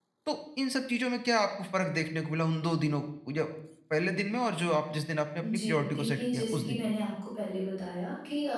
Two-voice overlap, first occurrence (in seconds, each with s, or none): 5.4 s